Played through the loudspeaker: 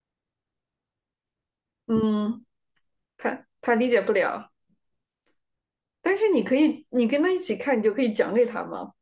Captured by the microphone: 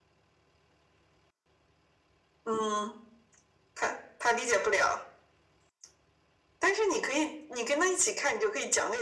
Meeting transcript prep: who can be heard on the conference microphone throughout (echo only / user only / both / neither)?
echo only